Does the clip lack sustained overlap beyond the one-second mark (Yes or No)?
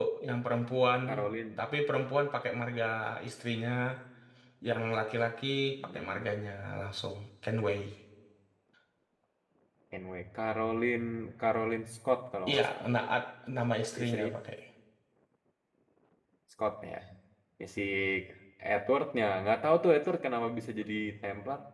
Yes